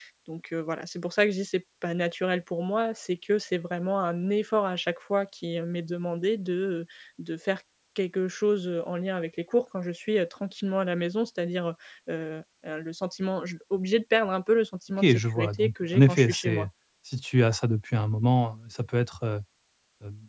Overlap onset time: 15.0 s

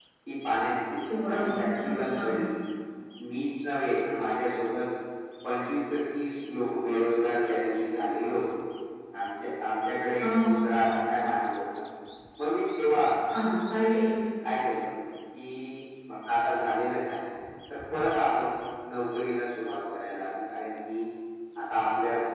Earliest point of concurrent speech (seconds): 1.1 s

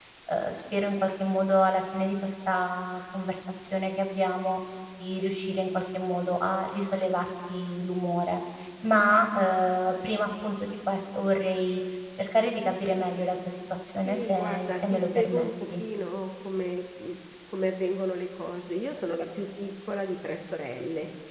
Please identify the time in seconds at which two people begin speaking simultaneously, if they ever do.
13.9 s

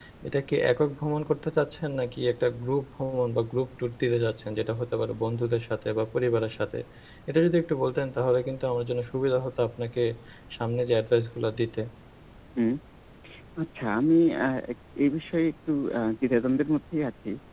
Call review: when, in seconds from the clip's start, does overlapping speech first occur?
none

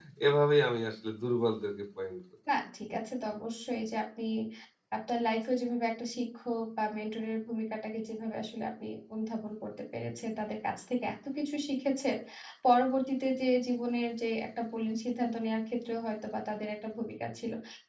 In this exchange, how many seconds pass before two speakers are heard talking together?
none

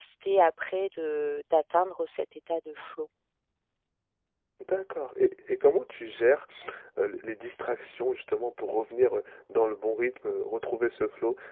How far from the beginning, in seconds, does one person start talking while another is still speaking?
none

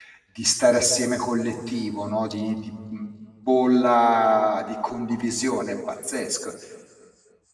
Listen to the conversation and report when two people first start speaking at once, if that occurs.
none

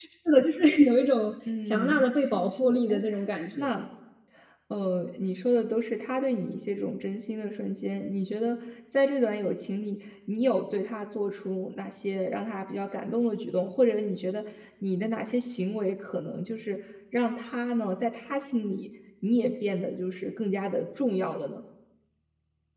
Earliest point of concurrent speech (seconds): 1.5 s

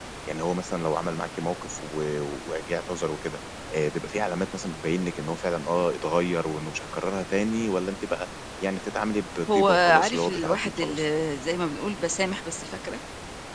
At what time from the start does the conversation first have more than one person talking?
9.5 s

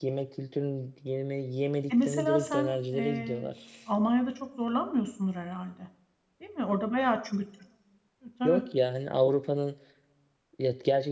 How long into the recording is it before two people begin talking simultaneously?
1.9 s

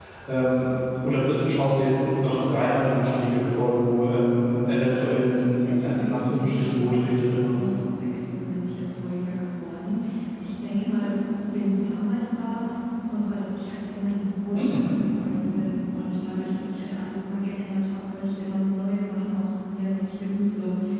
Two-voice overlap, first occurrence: 5.3 s

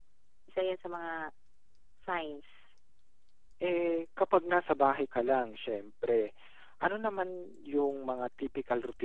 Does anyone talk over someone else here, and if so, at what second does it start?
none

